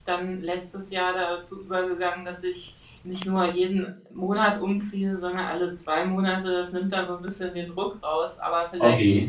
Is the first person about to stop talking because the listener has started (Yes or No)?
No